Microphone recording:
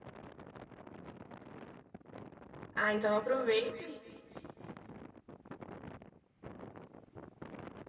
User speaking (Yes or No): Yes